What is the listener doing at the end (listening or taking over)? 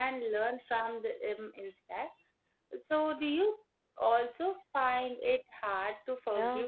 taking over